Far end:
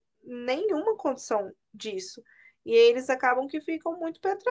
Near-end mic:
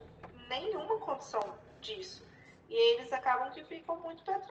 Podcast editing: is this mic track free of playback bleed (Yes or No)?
No